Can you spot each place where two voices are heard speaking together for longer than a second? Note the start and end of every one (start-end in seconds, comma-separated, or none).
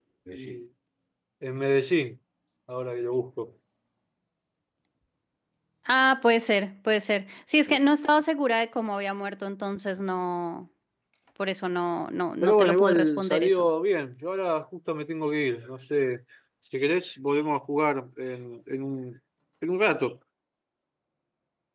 12.4-13.6